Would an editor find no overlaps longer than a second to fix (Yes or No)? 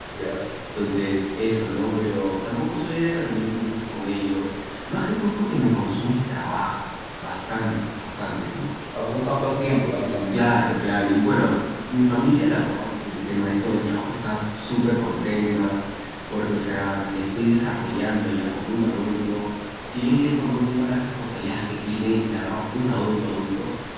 Yes